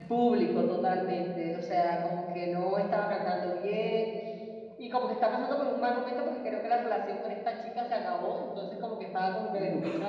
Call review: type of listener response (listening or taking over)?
listening